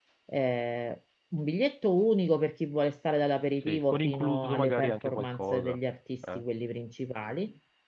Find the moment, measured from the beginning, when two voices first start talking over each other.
3.6 s

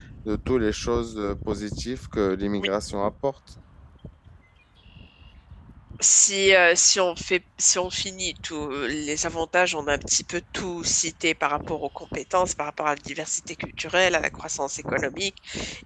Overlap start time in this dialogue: none

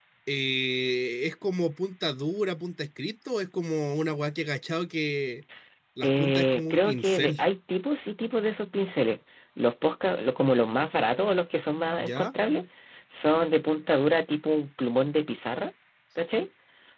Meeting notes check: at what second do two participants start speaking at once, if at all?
6.0 s

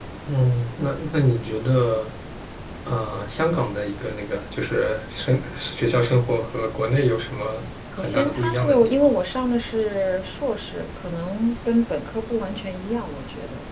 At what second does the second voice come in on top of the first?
7.9 s

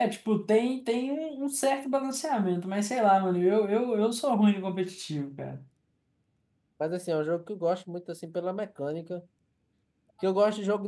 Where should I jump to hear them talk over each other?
none

